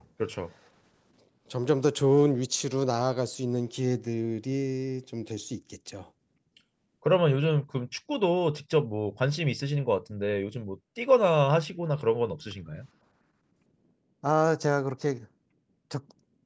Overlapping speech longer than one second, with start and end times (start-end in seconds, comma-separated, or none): none